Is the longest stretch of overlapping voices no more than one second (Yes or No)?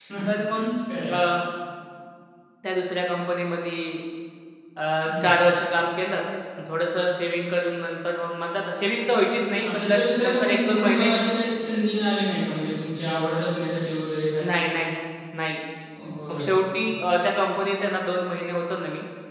No